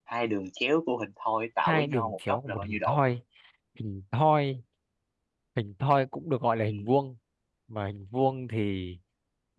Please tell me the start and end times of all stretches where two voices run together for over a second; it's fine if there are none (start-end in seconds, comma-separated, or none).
1.7-3.0